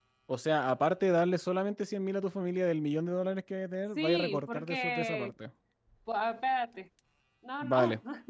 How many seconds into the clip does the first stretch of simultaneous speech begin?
4.0 s

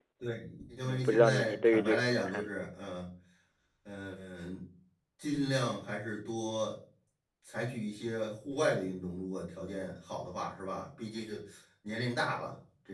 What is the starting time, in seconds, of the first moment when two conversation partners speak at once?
0.8 s

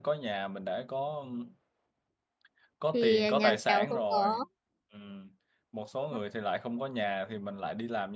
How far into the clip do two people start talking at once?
2.9 s

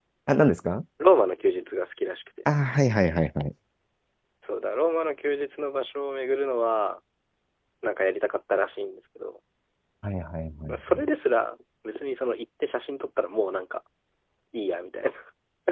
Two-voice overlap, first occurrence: none

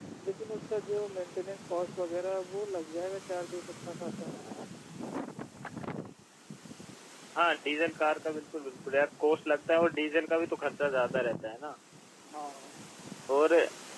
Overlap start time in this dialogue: none

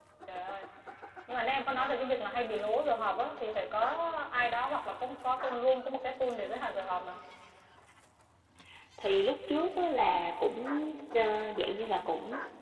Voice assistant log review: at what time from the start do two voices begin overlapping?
none

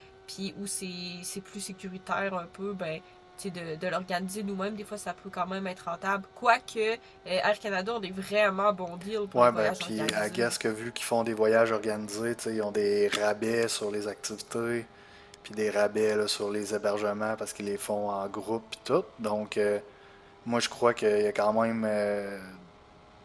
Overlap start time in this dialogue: 9.3 s

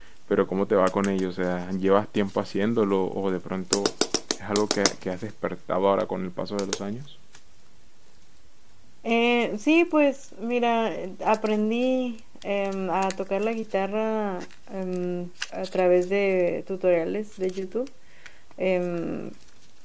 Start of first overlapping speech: none

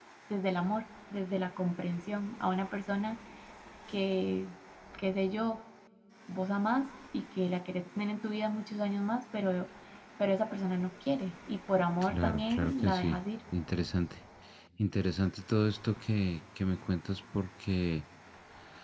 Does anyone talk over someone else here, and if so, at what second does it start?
12.0 s

